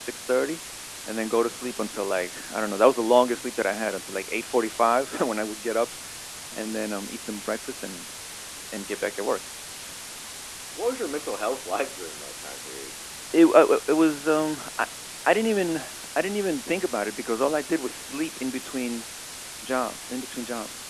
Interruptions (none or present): none